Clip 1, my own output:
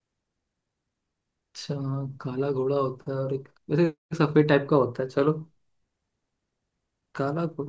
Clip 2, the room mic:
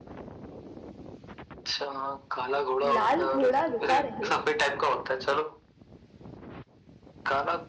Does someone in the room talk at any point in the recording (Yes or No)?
Yes